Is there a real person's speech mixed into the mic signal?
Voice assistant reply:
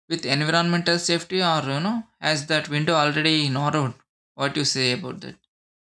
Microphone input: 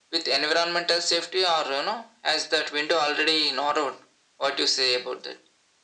No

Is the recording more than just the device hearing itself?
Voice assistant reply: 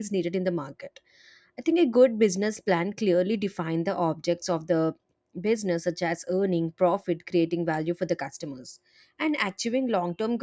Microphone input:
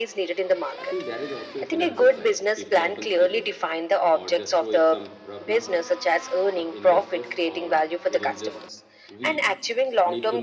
Yes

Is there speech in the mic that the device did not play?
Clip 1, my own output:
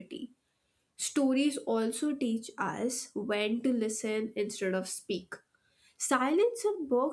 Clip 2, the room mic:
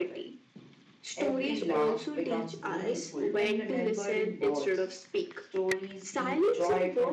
Yes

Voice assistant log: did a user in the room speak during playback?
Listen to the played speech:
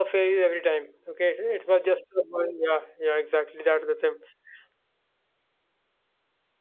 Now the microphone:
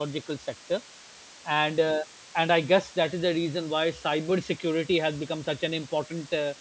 Yes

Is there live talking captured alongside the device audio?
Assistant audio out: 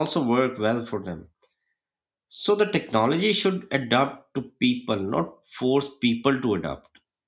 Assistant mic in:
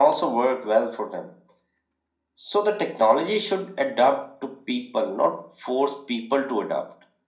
No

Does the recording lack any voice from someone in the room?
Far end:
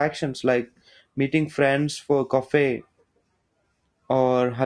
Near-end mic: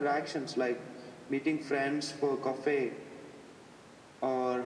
Yes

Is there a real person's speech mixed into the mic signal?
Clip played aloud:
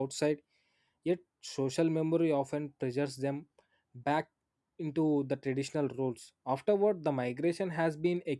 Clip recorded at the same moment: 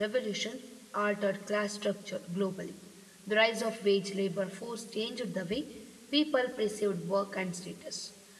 Yes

